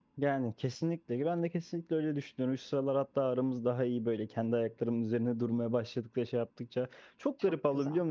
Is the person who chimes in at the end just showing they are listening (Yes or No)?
Yes